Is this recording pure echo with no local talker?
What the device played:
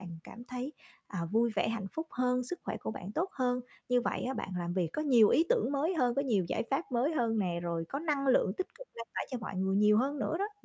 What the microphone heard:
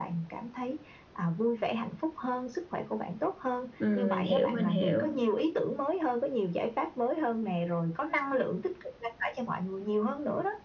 No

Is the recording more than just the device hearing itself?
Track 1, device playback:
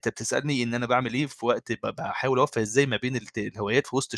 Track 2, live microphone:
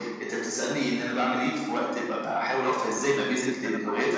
Yes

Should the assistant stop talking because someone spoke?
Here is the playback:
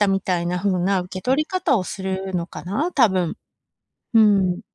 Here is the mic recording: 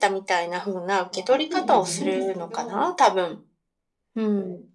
Yes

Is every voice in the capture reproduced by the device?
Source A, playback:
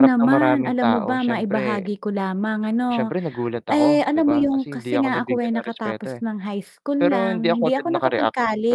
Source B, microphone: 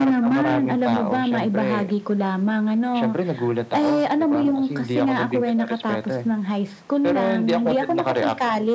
Yes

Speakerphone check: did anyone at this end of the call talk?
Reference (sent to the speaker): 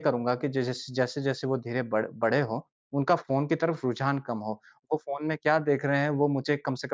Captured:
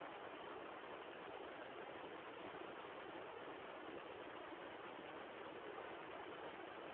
No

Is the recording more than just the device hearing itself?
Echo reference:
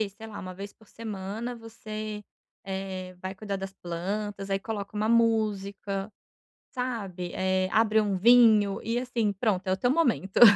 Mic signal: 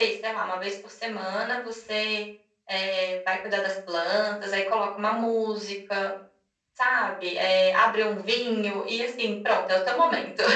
No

